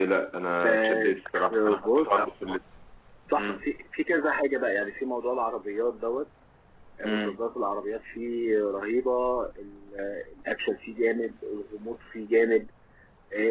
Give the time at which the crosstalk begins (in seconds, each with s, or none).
0.6 s